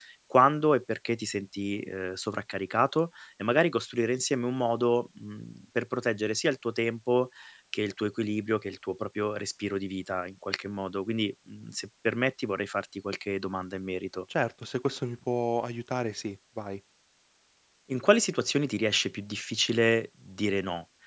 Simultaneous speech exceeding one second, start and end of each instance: none

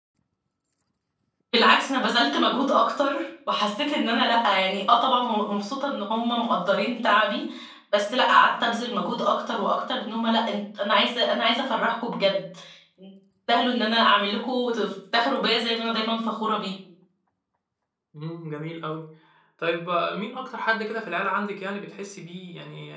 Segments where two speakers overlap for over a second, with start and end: none

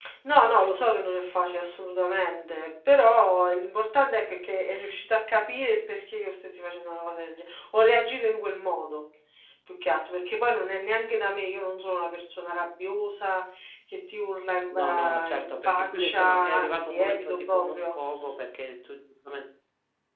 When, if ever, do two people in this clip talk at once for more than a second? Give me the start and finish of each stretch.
14.7-17.9

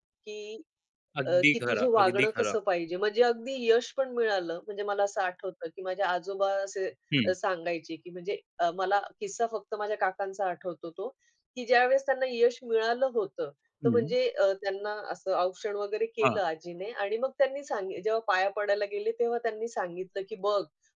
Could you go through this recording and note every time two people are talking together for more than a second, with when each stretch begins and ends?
1.3-2.5

